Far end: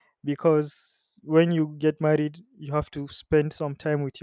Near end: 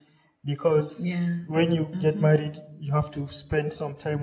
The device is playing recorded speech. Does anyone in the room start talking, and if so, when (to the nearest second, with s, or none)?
1 s